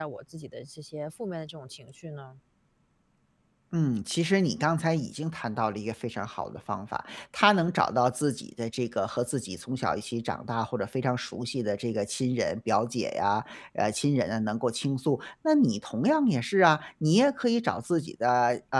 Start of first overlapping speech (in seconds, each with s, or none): none